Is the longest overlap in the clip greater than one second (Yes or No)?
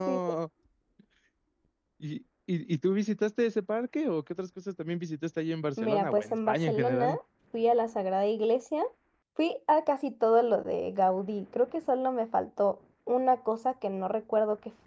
Yes